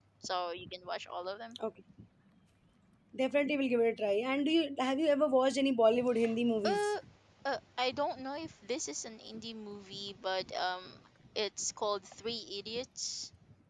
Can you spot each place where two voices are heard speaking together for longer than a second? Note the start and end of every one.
none

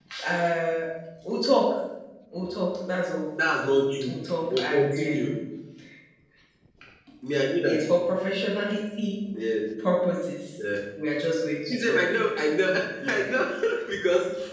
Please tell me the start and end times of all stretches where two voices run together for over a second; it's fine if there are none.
4.1-5.4

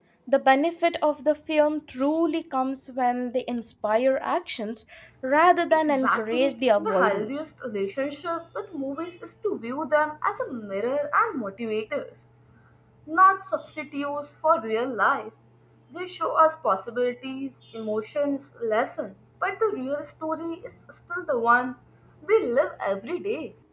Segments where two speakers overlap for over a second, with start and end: 5.9-7.5

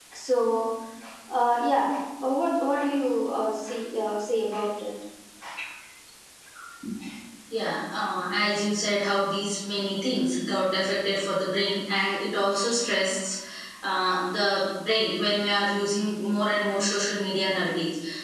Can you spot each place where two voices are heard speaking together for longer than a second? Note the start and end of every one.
none

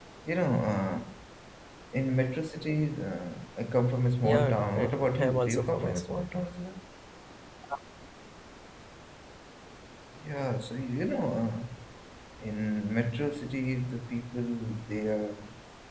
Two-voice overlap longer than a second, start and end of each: 4.2-6.5

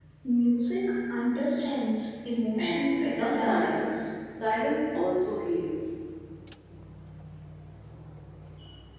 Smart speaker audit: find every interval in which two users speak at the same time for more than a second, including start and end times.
2.6-3.9

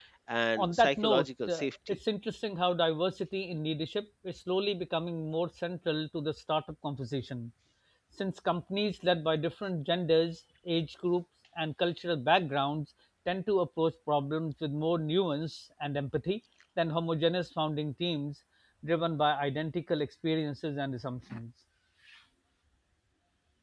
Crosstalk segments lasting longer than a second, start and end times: 0.6-2.0

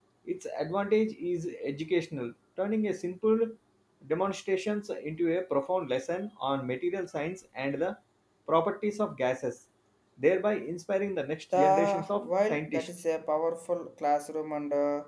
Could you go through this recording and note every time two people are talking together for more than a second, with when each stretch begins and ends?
11.6-12.9

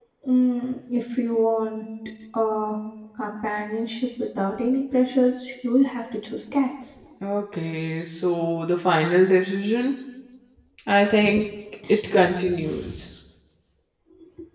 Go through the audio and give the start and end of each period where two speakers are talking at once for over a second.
none

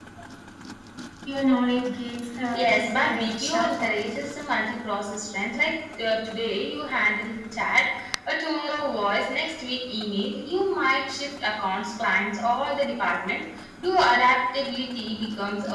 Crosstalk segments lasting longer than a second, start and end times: 2.5-4.0

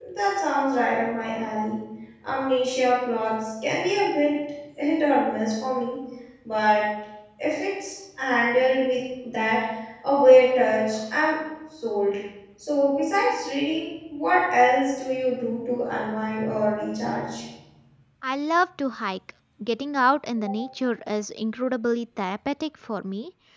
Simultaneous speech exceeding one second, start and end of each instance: none

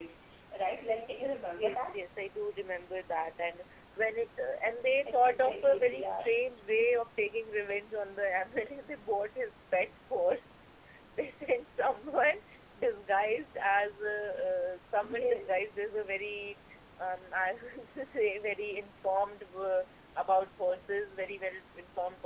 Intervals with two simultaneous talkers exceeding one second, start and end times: 5.1-6.3

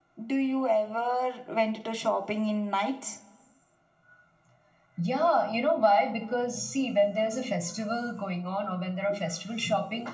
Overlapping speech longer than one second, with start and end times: none

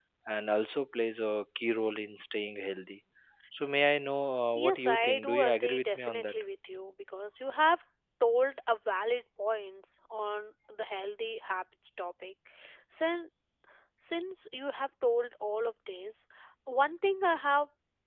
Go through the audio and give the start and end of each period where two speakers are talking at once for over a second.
4.5-6.3

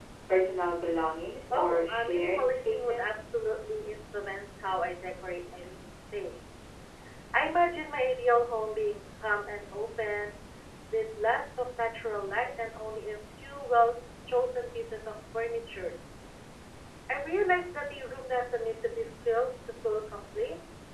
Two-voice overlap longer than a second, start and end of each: 1.5-3.4

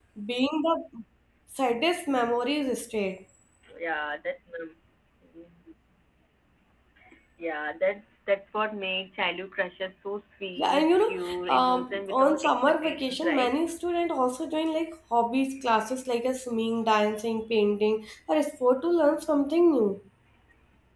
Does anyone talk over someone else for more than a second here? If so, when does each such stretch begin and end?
10.6-13.5

